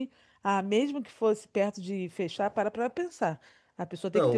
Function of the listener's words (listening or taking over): taking over